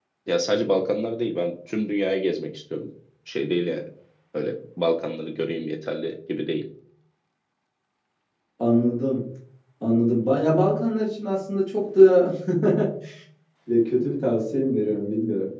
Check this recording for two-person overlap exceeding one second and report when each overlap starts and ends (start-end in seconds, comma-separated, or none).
none